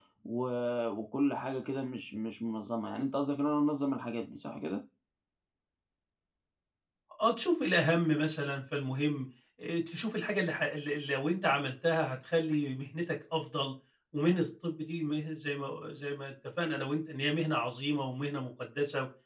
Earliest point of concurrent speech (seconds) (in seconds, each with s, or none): none